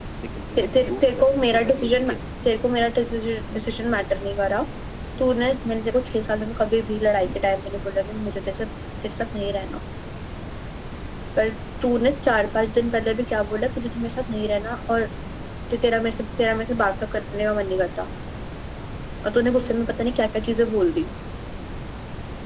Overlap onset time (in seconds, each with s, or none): 0.6 s